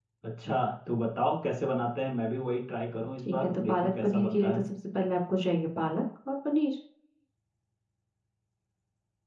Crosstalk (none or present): present